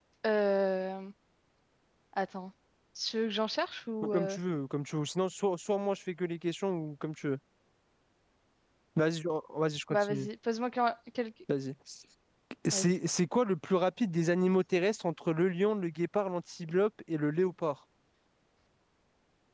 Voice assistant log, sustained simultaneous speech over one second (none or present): none